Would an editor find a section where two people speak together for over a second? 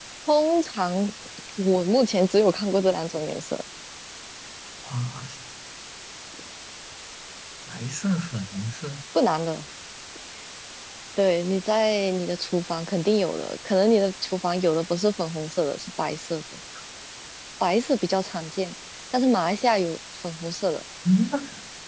No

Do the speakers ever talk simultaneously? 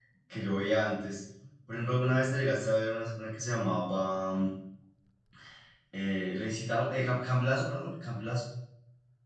No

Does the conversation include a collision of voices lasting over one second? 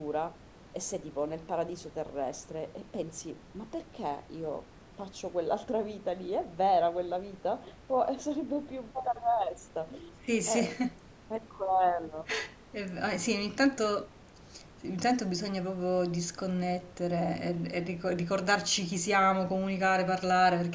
No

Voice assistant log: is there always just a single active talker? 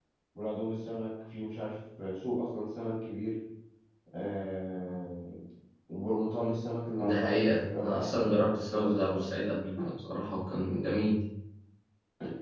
No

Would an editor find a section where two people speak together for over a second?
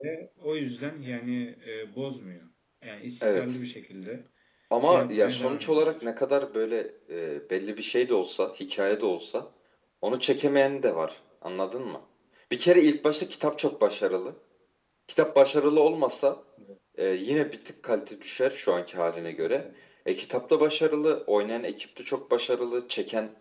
Yes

